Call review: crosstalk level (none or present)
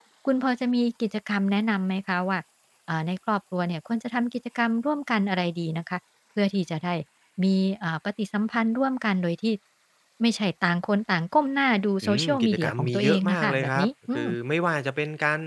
present